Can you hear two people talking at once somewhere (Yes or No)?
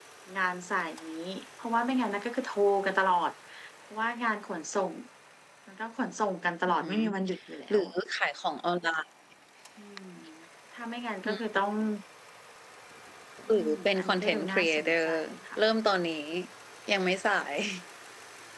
Yes